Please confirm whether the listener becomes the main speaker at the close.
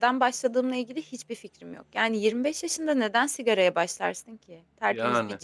No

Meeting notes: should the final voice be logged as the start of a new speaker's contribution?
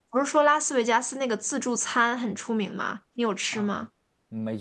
Yes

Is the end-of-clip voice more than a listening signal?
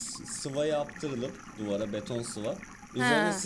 No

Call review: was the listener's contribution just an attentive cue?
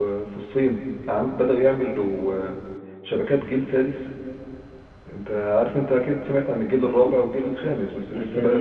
No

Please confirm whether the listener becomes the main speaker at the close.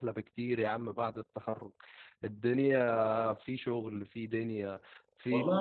Yes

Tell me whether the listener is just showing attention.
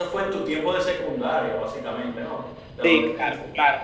No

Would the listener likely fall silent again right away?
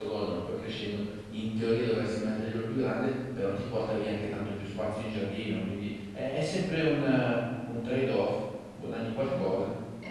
No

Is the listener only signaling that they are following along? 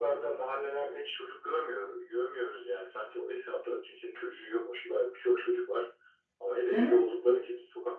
Yes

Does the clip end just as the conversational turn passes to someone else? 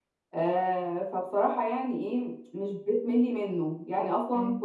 No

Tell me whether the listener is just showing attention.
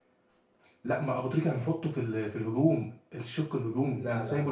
No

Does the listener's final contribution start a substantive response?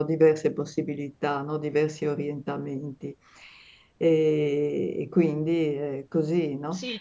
Yes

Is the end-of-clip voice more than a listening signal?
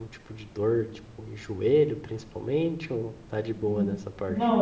Yes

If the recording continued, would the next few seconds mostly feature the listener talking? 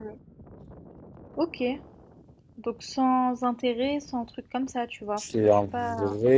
Yes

